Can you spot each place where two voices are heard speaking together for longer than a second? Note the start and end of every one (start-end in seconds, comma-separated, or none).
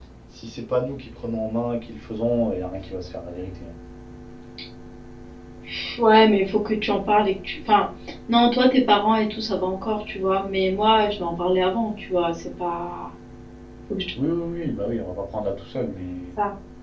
none